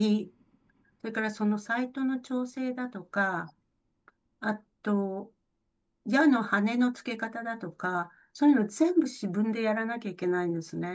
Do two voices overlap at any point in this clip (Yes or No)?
No